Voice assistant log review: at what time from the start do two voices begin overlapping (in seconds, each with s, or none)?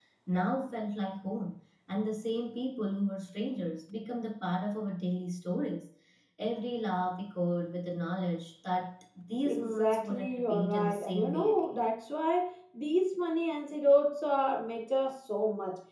9.4 s